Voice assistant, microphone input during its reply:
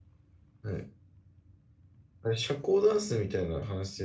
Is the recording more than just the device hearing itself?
Yes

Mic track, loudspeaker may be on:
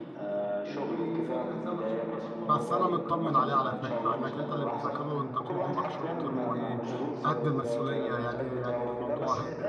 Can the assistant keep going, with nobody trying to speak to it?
No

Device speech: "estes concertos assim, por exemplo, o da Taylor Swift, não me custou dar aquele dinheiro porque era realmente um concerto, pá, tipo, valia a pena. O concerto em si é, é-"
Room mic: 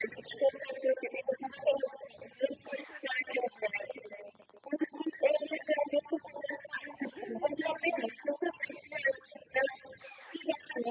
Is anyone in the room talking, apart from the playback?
Yes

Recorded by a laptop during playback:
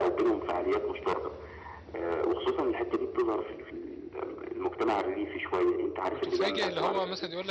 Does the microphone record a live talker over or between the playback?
Yes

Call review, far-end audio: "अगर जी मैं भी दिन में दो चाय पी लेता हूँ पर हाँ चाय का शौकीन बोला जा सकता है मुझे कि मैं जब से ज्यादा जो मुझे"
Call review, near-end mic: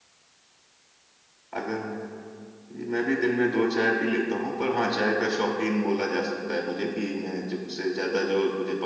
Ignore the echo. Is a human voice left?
No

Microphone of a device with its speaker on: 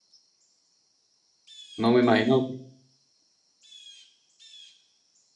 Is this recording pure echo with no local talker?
No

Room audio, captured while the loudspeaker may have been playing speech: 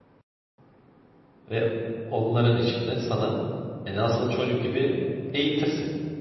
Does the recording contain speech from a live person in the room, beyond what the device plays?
Yes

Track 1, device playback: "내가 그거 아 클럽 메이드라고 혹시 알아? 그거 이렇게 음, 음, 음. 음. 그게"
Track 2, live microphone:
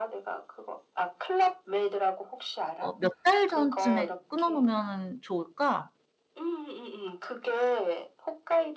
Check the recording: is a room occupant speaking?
Yes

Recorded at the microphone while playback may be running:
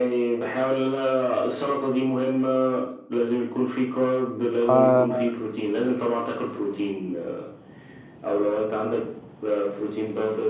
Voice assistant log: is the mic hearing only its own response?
No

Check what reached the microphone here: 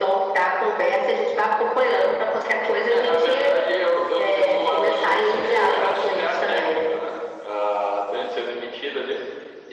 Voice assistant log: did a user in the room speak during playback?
No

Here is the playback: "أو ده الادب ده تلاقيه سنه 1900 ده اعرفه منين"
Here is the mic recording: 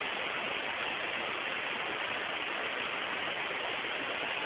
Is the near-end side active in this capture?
No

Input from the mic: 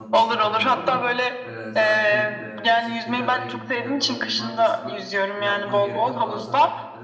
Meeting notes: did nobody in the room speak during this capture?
No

